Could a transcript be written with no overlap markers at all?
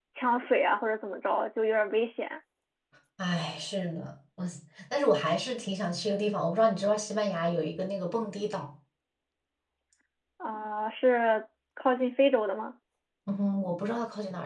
Yes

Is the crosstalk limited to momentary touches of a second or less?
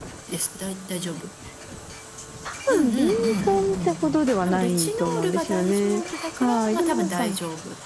No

